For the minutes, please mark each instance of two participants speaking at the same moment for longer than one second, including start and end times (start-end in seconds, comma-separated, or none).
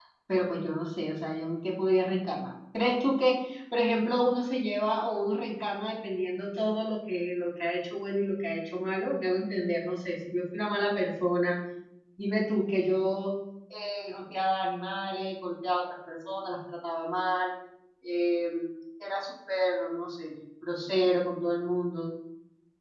none